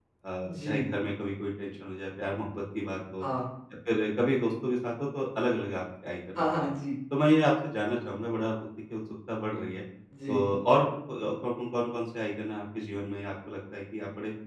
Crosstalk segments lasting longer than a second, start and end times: none

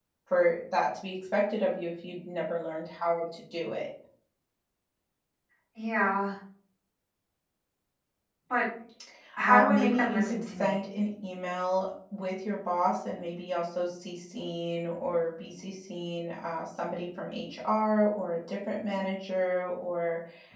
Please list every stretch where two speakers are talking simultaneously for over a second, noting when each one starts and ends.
9.4-10.8

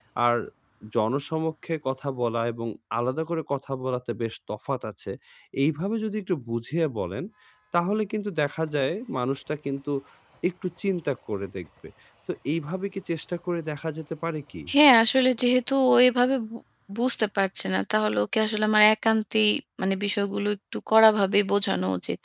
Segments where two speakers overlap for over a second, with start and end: none

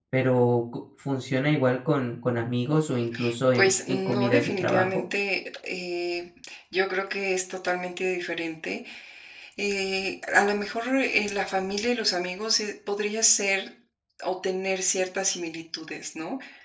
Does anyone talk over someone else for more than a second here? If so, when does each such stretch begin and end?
3.5-5.0

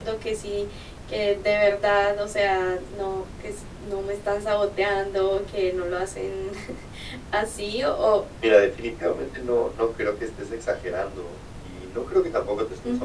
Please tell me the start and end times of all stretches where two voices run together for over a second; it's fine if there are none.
none

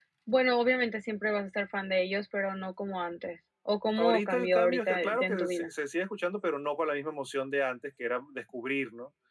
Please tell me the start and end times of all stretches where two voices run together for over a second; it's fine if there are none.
4.0-5.7

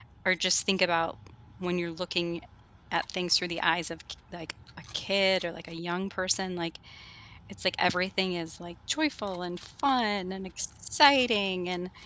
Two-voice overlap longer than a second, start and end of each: none

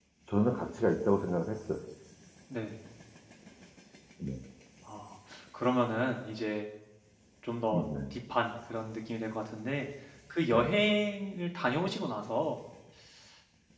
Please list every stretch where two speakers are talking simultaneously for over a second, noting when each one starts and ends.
none

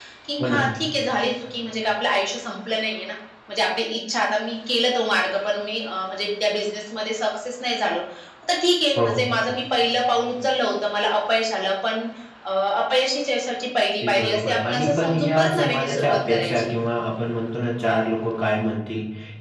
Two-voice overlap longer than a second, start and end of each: 14.0-16.7

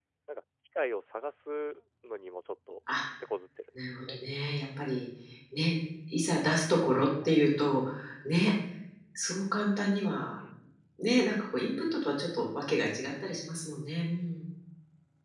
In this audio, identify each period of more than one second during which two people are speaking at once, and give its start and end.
none

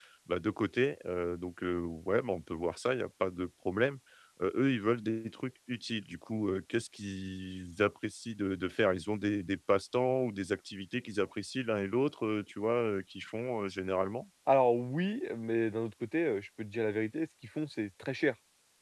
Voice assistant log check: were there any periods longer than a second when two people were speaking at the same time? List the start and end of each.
none

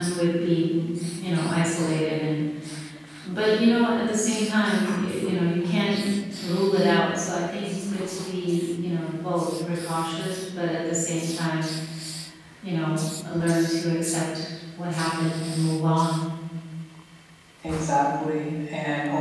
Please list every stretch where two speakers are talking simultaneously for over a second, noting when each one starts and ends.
none

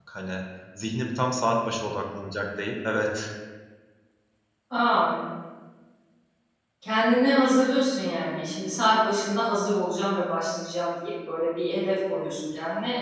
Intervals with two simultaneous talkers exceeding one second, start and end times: none

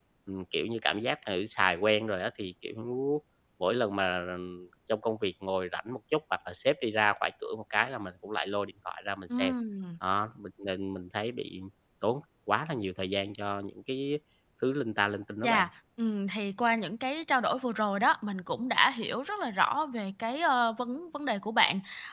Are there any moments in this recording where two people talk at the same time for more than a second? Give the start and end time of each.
none

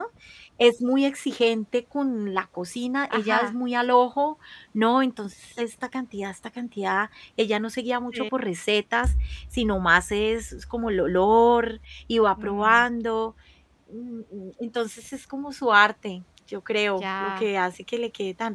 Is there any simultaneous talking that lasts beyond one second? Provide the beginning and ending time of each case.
none

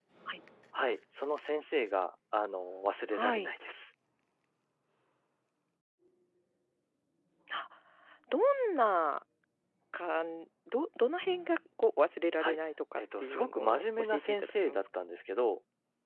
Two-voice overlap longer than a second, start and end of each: 13.0-14.8

